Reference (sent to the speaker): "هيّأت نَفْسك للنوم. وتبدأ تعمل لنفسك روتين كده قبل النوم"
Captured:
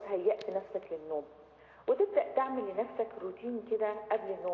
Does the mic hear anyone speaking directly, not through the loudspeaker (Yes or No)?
No